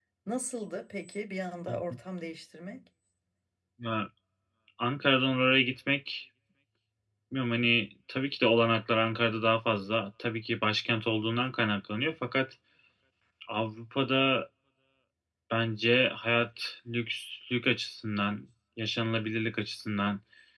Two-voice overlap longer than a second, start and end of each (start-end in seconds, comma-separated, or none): none